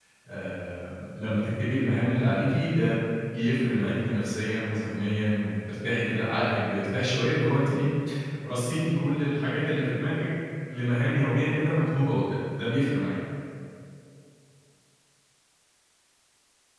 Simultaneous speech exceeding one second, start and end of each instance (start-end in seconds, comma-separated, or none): none